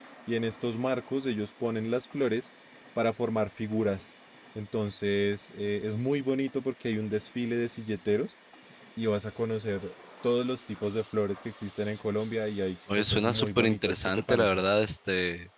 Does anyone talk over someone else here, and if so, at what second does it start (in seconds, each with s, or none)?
12.9 s